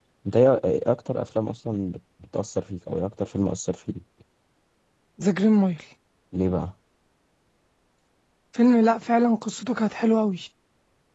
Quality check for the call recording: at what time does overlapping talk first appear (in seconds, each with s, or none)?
none